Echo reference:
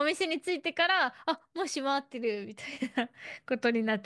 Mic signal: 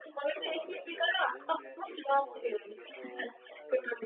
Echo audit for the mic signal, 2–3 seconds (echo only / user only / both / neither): both